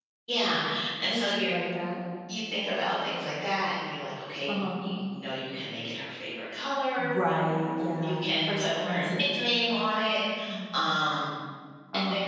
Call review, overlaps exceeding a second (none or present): present